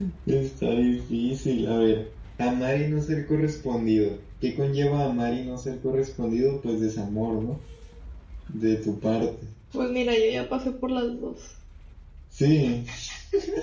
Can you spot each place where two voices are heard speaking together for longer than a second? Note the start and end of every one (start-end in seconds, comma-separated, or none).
none